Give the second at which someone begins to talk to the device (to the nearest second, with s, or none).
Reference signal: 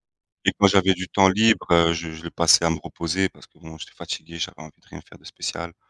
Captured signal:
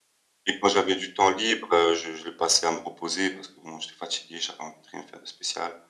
none